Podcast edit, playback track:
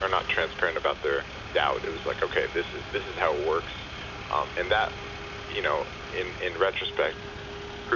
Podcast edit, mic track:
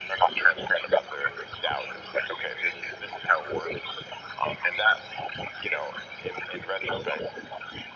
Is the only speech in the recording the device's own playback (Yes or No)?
Yes